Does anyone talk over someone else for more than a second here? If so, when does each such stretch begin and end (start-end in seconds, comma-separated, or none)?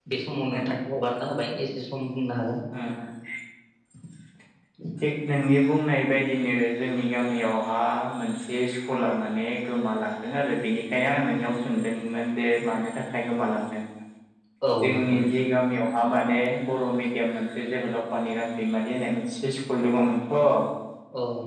none